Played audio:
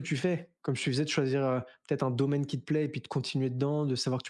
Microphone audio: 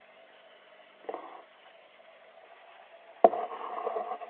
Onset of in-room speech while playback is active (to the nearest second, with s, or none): none